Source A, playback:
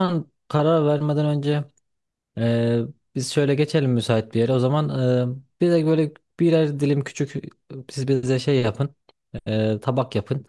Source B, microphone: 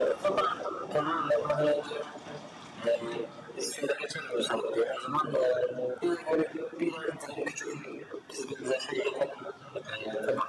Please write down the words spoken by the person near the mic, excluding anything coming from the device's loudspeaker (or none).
none